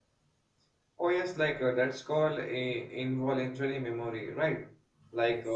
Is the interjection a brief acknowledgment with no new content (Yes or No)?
Yes